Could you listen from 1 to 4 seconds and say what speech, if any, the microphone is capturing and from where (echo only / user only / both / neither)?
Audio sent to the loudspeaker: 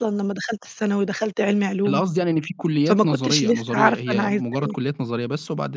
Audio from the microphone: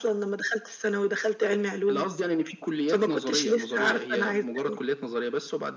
echo only